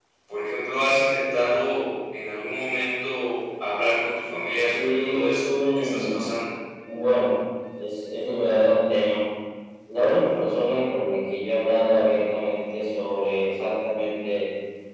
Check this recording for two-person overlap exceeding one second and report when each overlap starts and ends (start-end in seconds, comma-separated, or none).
4.6-6.1